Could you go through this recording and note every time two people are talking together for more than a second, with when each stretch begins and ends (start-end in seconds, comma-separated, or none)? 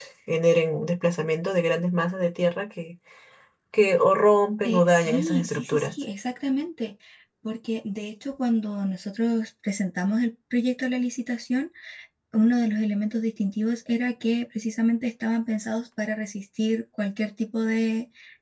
4.6-5.9